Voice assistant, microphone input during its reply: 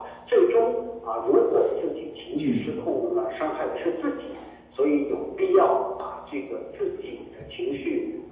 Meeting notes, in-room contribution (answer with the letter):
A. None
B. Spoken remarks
B